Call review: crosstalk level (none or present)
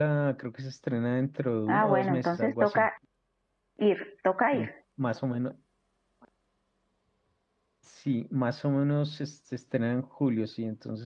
present